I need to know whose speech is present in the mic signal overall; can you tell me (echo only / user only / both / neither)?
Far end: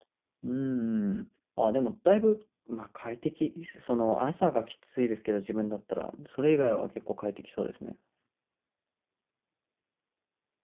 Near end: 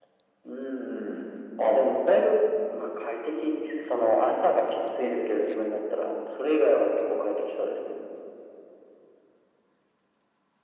echo only